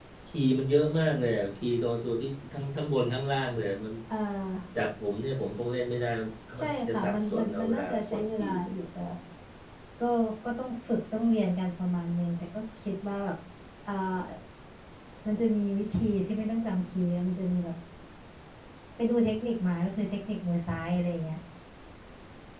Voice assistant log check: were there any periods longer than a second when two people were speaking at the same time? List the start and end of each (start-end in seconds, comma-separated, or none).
6.6-8.6